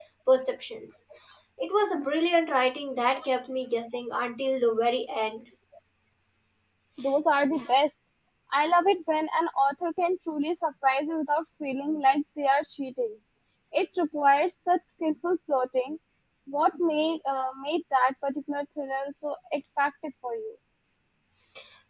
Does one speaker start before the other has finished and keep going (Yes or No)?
No